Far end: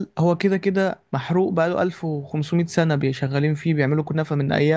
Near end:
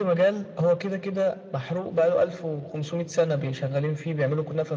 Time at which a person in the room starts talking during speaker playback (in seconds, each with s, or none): none